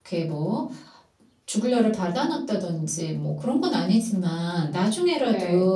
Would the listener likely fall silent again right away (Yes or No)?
Yes